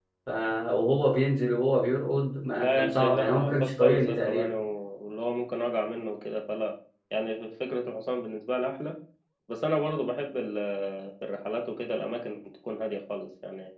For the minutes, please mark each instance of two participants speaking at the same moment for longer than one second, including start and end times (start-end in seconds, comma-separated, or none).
2.6-4.5